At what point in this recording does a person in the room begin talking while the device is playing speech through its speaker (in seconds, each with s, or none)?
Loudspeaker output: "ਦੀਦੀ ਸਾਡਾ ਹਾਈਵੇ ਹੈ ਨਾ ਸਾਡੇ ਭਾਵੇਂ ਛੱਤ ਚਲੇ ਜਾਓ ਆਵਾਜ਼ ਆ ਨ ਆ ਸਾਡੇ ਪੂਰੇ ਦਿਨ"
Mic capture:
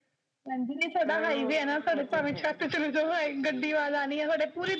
1.1 s